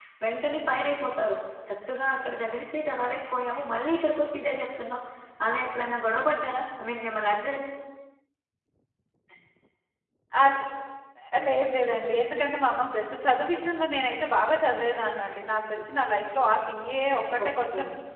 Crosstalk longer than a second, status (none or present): none